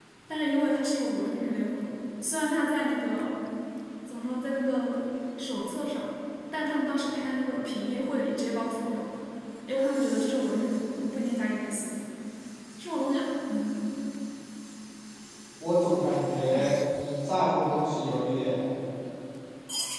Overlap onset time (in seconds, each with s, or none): none